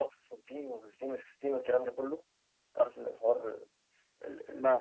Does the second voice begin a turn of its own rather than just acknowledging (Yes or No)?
No